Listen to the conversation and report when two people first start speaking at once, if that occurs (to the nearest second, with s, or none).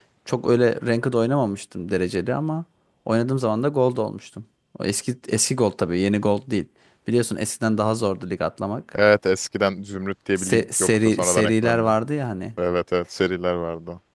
10 s